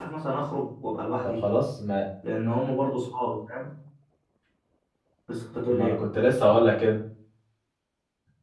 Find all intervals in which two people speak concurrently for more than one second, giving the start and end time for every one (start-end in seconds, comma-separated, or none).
none